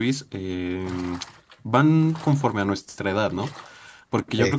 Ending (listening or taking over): listening